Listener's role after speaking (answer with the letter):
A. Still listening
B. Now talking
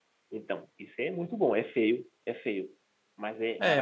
B